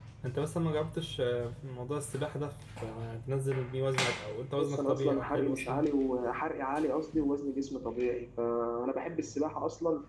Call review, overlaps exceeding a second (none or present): present